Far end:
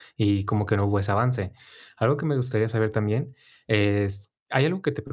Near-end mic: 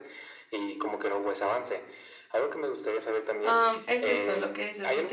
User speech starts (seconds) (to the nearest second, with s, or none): 3 s